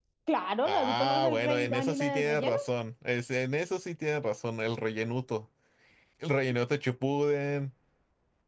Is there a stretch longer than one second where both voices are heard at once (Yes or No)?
Yes